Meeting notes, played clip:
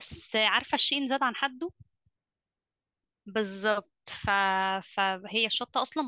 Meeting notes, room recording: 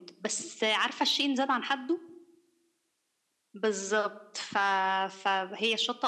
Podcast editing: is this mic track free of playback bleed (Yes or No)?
No